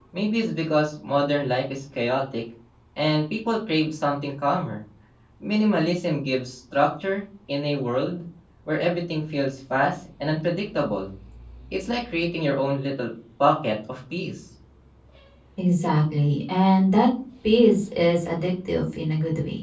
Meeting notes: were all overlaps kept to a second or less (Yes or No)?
Yes